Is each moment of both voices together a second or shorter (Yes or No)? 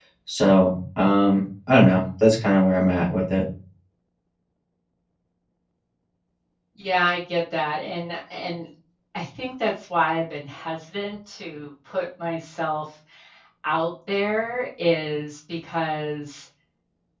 Yes